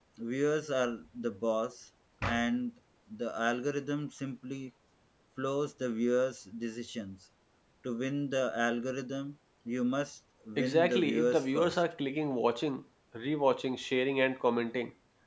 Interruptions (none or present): present